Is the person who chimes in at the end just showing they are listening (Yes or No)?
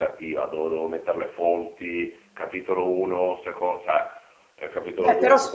No